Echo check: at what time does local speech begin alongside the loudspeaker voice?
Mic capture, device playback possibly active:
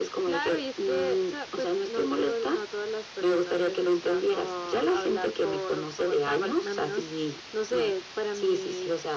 none

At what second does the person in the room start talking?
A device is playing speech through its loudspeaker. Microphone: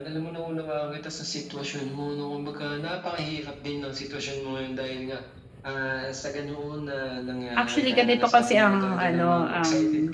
7.6 s

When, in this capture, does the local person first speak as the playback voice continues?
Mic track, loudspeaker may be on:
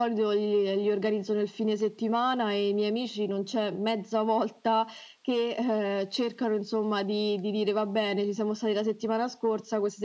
none

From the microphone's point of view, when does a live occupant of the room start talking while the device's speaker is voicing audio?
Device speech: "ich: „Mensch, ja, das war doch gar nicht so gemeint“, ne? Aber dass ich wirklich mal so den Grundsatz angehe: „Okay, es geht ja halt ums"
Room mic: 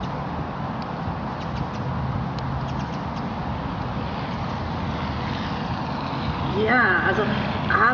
6.4 s

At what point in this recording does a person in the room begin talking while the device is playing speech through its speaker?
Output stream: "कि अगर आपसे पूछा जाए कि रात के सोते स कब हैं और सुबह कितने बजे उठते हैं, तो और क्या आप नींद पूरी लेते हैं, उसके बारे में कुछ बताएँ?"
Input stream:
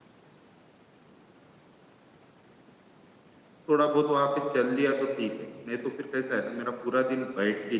3.7 s

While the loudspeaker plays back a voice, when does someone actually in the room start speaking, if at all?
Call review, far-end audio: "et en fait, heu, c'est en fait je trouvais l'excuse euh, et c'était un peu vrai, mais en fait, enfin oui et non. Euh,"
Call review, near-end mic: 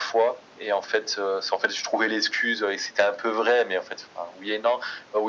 none

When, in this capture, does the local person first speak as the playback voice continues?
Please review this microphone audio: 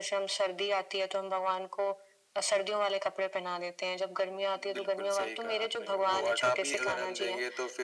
none

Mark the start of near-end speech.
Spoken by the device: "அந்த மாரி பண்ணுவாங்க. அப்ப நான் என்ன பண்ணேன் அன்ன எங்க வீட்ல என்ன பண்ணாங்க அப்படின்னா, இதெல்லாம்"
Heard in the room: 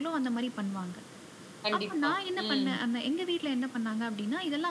1.6 s

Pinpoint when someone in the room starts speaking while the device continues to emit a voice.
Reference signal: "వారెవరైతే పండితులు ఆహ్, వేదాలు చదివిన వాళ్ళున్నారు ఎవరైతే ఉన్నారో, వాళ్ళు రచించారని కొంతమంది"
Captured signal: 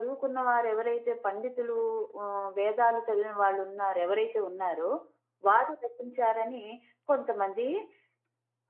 none

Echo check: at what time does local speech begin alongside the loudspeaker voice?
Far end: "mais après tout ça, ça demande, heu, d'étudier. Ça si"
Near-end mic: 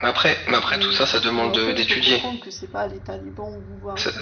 0.7 s

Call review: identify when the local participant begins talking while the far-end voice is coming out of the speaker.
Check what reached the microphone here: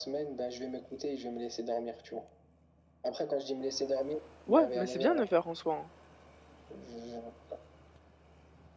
4.4 s

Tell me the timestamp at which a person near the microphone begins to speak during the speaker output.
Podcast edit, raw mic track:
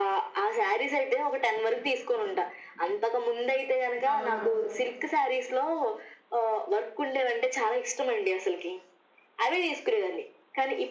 4.1 s

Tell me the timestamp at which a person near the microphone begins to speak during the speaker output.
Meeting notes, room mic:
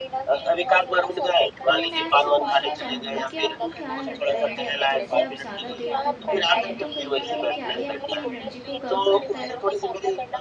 1.7 s

